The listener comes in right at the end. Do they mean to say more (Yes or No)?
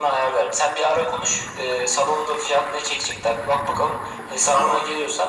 No